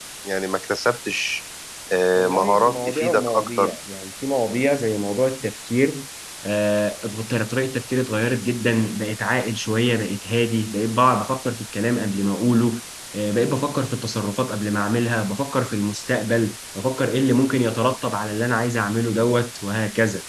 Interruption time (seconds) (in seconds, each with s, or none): 2.1 s